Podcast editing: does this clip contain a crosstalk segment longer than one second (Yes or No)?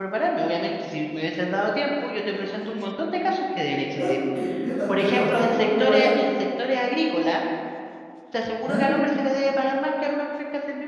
Yes